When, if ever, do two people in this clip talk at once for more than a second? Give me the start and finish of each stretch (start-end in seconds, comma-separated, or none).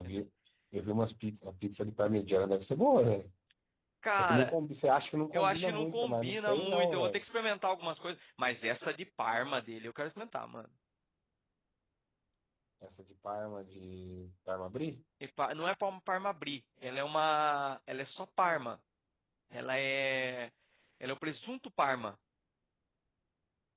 5.3-7.2